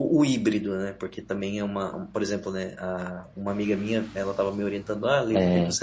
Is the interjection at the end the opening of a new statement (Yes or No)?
No